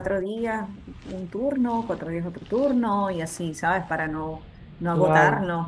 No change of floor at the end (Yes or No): Yes